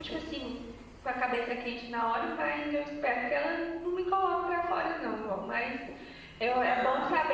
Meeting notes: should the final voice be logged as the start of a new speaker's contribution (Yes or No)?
No